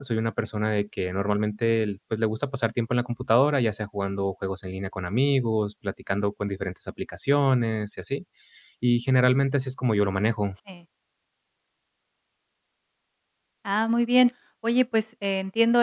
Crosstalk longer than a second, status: none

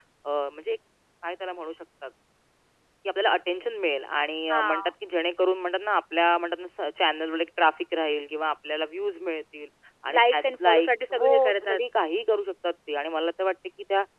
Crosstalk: present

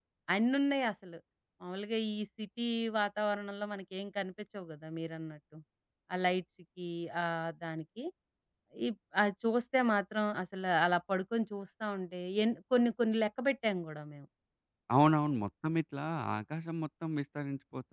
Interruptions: none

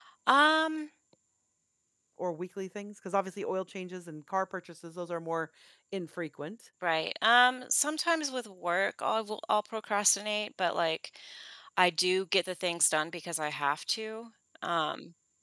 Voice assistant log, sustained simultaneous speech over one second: none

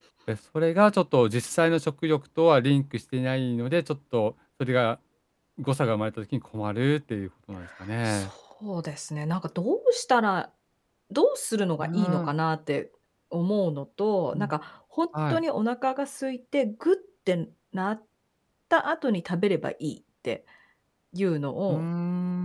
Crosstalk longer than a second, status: none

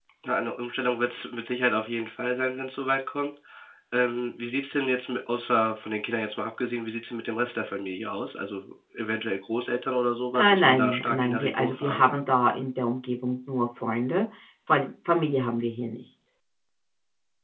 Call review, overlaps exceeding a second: present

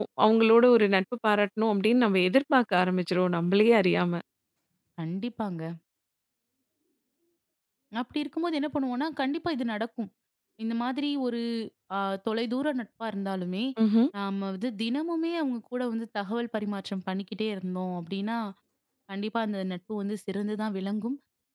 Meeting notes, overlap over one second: none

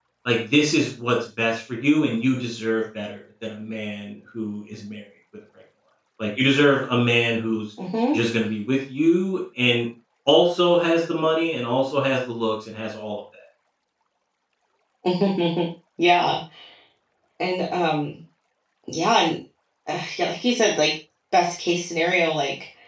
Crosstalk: none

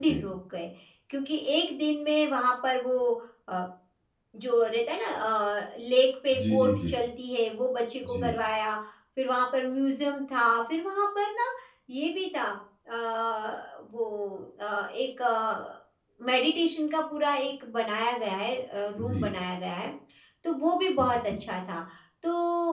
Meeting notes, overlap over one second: none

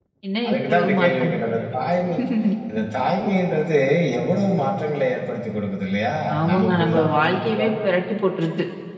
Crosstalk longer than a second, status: present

